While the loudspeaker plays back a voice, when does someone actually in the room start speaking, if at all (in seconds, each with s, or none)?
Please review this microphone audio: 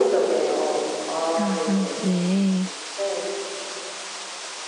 1.4 s